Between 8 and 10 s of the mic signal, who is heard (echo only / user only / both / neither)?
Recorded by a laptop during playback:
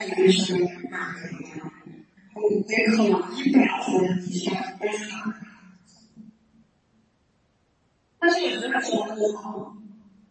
echo only